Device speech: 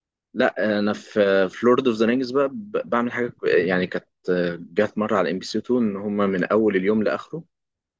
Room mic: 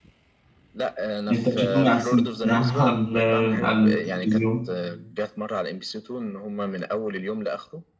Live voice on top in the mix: Yes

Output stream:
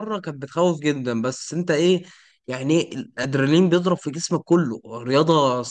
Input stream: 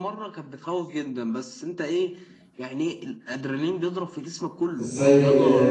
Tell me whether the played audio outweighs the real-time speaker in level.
No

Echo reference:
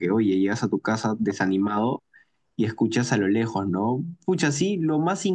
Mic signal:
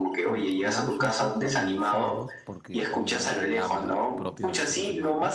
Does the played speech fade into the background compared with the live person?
No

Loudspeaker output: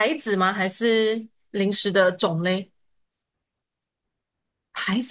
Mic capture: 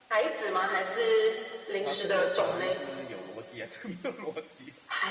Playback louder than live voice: Yes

